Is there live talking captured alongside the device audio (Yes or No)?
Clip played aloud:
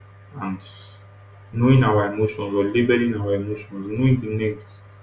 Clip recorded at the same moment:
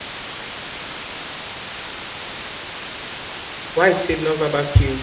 Yes